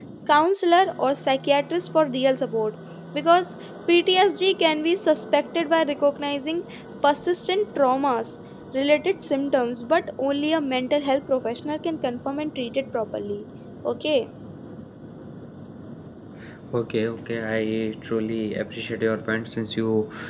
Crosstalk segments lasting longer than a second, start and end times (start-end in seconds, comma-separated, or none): none